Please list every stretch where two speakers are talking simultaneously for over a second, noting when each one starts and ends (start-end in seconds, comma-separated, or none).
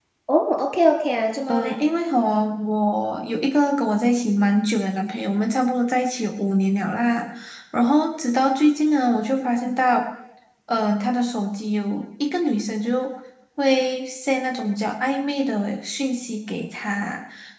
none